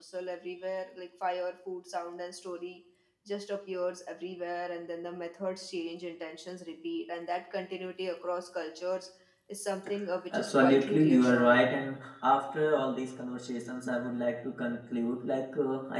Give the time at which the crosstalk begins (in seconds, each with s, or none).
10.3 s